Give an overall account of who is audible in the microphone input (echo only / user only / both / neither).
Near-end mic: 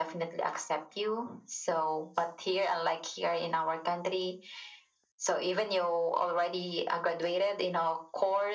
echo only